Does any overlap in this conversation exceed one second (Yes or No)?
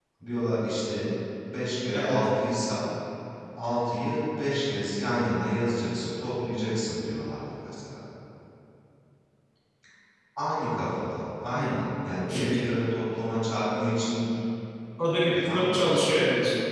No